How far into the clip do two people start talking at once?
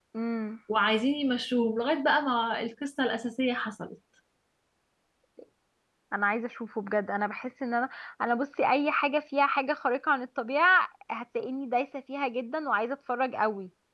none

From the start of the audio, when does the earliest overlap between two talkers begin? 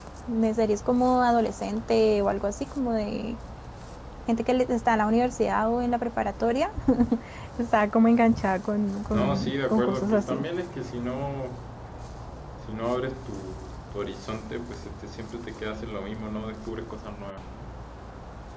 9 s

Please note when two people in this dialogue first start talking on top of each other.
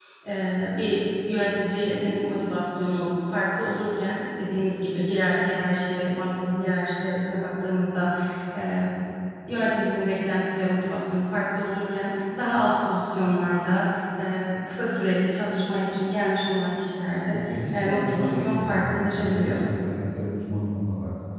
17 s

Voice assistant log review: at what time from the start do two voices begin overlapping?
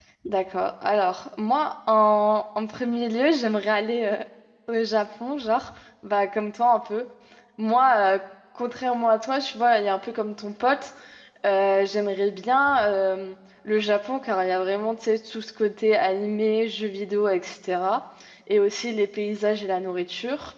none

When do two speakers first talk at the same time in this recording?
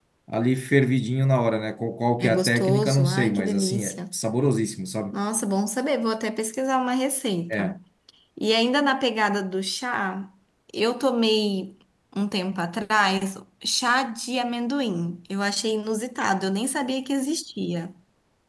2 s

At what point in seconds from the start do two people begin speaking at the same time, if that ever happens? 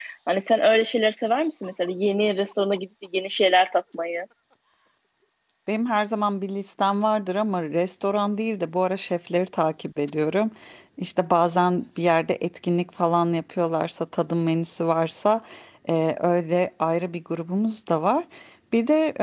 none

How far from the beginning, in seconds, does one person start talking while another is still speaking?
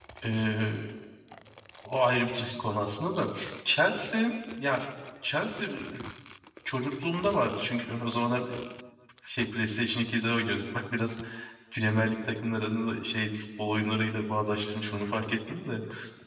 none

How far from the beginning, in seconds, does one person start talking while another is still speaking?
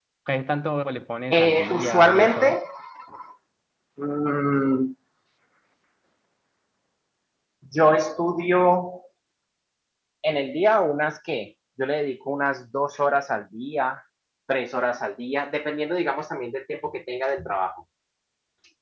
1 s

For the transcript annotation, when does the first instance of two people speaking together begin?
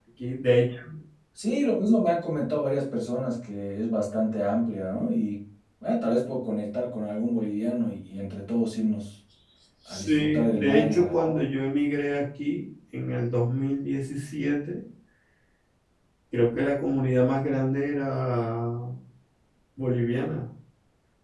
10 s

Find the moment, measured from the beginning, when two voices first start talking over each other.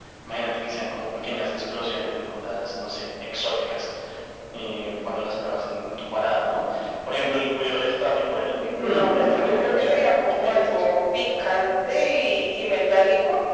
9 s

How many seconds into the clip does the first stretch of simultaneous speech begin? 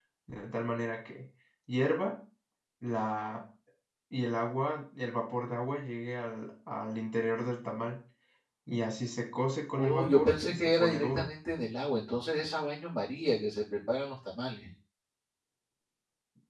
10 s

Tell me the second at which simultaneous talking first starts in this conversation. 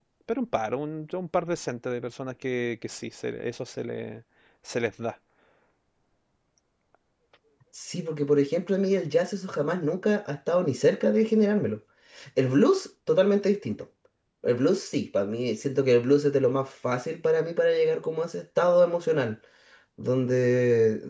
none

